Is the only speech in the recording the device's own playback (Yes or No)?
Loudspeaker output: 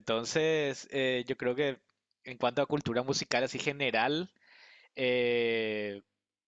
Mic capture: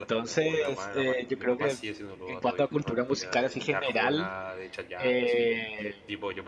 No